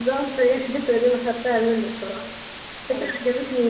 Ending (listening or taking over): listening